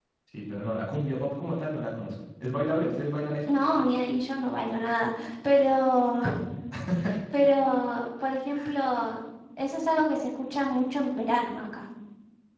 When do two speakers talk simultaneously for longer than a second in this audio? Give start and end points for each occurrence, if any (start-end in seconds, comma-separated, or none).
none